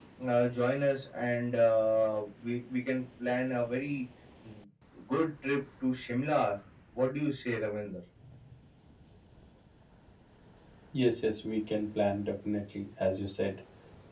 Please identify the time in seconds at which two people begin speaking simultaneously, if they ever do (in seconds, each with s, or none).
none